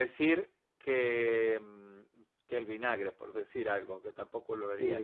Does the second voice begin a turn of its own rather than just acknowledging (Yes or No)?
Yes